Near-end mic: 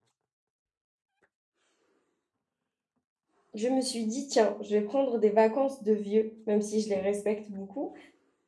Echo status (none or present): none